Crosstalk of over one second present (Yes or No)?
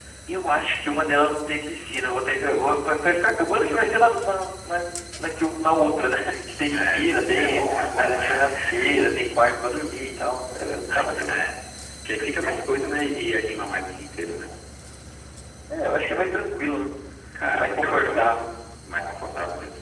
Yes